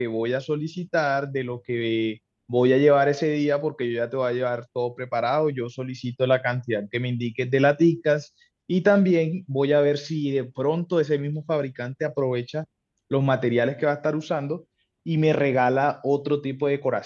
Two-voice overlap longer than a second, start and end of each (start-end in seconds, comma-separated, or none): none